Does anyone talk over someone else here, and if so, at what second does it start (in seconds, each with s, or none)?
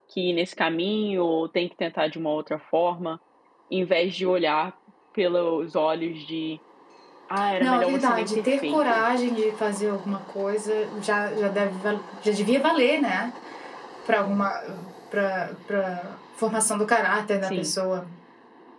7.6 s